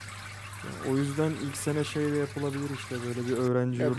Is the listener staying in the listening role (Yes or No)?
No